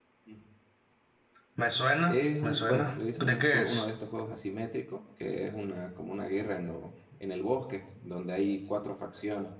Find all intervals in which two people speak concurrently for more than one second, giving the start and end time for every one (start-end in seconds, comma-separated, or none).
2.0-3.9